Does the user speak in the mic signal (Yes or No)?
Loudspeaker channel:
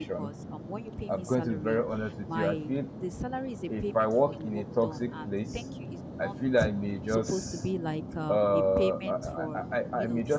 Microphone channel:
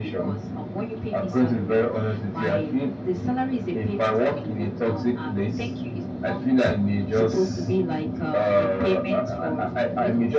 No